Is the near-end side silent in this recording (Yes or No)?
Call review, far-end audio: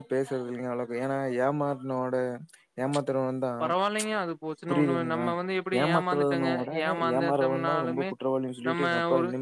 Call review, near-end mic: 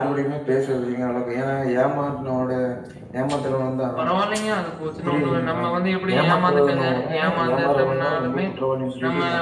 Yes